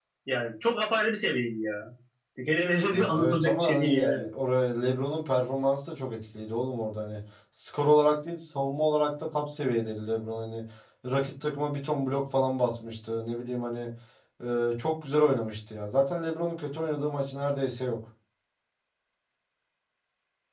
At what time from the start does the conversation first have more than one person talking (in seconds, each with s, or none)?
2.9 s